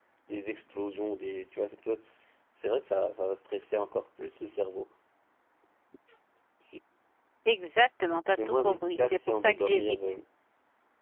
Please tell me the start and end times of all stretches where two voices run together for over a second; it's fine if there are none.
8.3-10.0

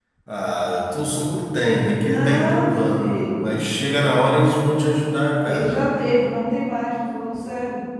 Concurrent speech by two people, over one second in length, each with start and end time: 2.0-3.5

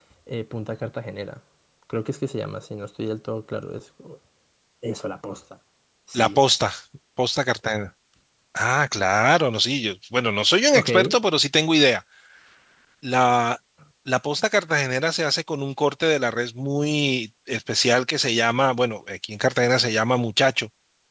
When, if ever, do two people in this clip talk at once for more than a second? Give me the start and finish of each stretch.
none

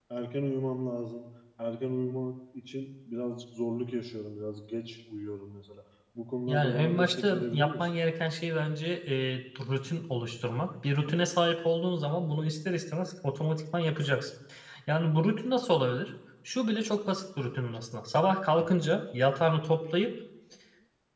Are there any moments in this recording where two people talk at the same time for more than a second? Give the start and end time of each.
6.5-7.8

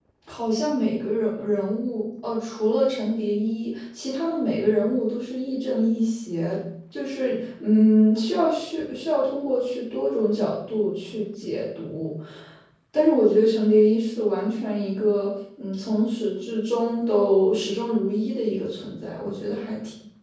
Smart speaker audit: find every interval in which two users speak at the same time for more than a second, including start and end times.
none

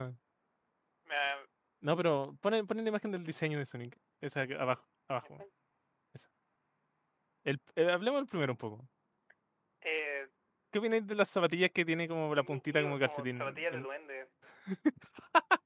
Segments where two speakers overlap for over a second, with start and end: 12.3-13.8

